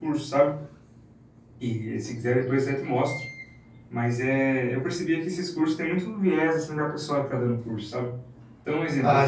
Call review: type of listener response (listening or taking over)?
listening